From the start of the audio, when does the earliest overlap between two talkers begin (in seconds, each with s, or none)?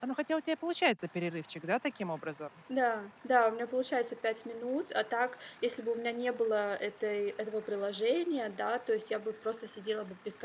none